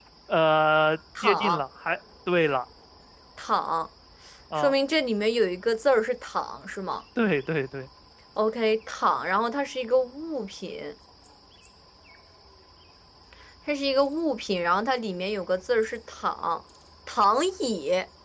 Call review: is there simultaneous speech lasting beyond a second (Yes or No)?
No